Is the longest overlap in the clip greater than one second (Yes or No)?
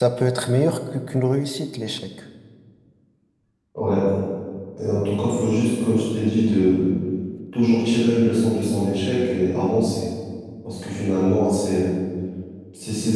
No